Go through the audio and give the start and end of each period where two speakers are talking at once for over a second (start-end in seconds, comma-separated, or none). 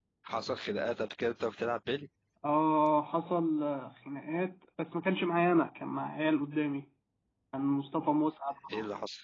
none